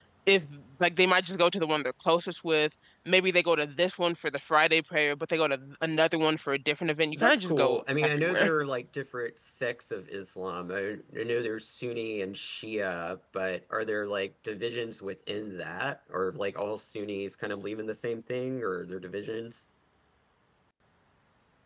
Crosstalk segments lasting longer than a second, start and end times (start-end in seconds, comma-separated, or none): 7.1-8.5